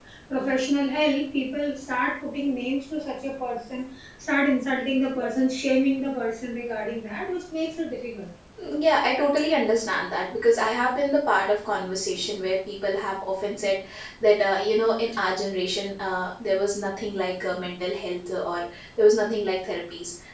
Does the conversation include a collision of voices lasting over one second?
No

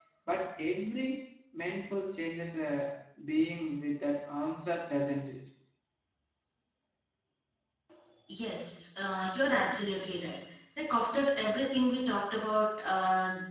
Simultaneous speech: No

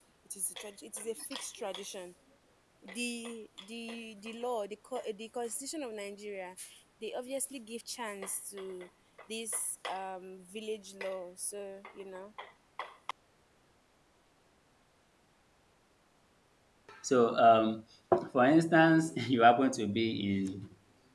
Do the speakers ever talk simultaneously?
No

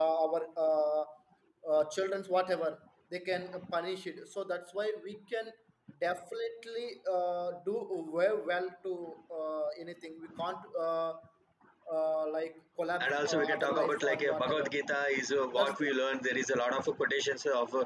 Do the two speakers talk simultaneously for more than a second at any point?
Yes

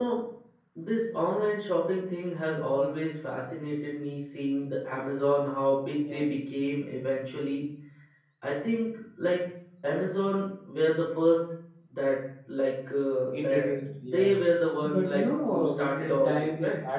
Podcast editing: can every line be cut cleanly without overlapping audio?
No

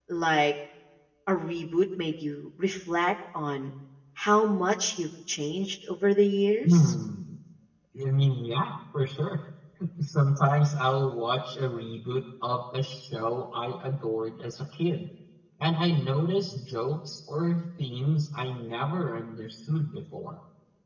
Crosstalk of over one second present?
No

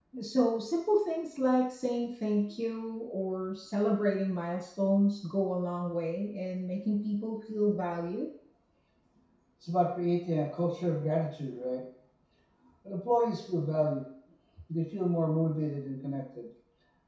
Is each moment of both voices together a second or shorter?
Yes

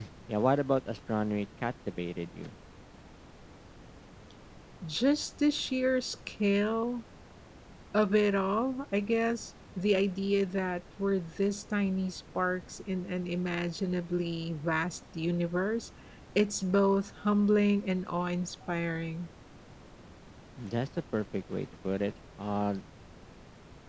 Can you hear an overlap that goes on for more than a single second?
No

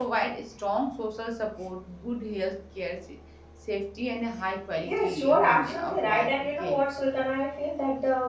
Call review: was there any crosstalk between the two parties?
Yes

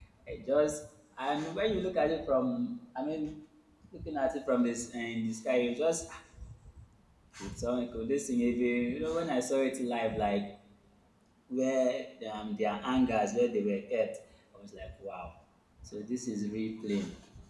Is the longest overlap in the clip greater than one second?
No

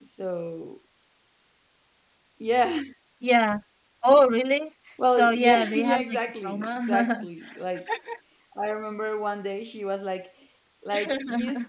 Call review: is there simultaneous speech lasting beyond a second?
Yes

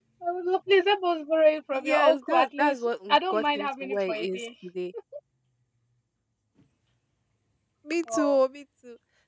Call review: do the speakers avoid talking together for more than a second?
No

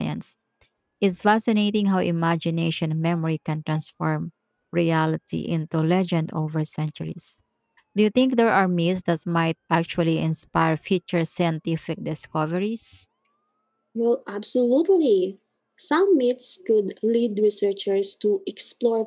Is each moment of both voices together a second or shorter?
Yes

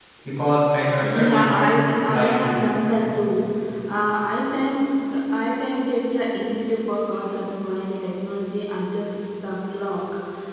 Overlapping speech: Yes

